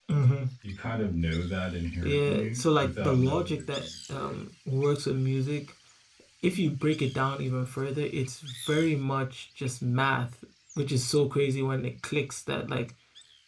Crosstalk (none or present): present